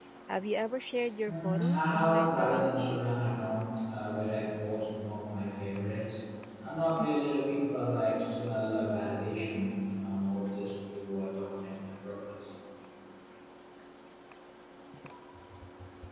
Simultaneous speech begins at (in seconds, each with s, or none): 1.3 s